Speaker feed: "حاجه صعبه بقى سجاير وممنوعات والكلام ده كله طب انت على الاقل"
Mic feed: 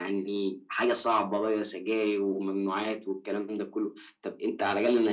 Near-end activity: none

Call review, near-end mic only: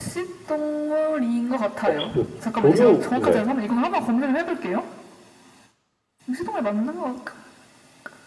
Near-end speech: present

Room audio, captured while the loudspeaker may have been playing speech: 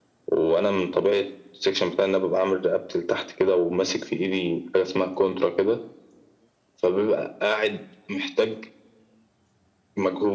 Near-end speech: none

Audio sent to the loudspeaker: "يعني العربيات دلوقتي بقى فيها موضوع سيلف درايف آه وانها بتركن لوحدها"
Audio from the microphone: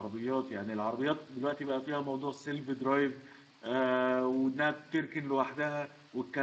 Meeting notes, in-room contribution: none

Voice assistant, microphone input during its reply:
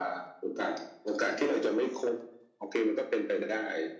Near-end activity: none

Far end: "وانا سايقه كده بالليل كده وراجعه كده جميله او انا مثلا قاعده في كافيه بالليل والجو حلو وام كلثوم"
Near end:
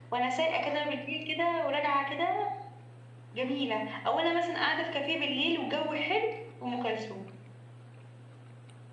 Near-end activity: none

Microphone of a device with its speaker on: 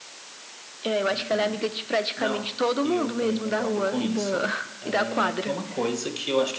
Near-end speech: present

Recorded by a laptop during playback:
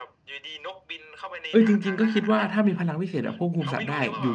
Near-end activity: present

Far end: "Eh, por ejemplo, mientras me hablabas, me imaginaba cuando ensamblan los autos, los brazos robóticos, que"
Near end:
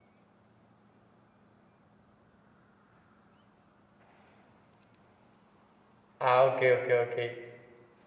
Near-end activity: present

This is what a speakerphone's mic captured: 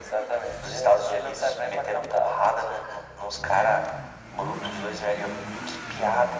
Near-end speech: none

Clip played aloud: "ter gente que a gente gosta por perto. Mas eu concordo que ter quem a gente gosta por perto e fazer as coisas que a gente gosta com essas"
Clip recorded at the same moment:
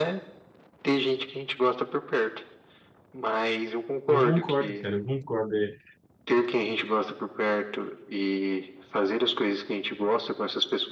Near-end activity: present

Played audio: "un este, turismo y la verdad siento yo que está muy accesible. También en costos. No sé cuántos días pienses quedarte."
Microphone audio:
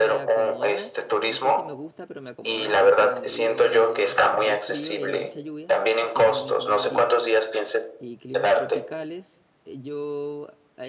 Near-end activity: present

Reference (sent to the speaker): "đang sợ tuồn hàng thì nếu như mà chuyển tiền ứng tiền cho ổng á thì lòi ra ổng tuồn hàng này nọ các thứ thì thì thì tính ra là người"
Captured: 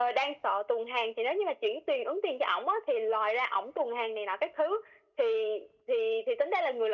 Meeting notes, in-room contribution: none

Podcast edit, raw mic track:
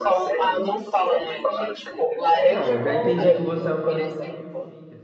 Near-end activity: present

